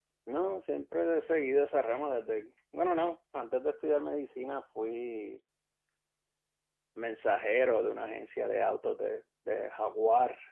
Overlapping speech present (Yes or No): No